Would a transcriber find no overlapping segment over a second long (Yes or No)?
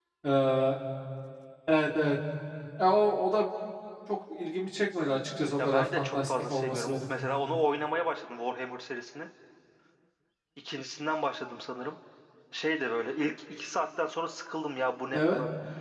No